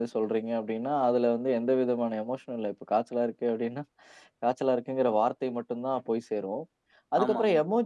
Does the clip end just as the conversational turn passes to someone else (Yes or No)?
No